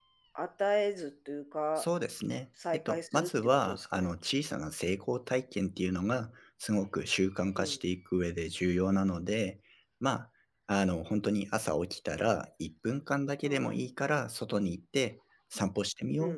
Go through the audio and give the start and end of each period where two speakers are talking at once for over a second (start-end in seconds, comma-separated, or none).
2.7-4.1